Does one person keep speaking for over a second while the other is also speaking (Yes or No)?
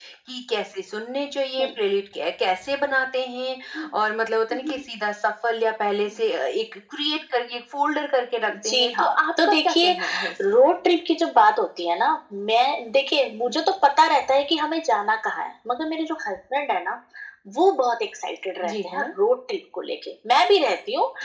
Yes